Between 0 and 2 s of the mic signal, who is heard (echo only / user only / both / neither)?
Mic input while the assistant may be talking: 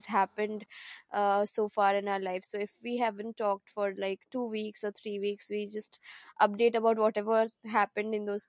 user only